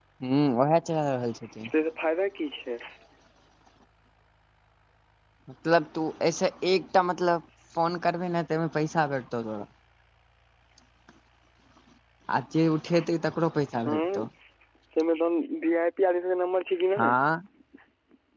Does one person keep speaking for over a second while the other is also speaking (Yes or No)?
No